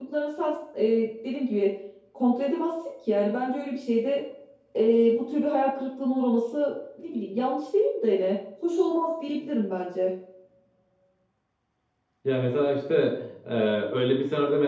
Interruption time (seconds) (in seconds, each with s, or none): none